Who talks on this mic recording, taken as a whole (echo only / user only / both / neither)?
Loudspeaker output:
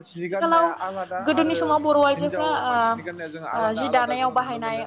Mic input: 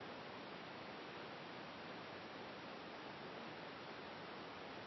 neither